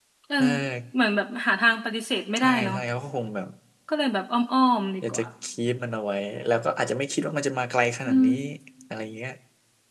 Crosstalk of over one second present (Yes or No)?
No